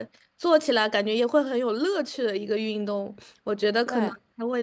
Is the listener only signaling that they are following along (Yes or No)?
Yes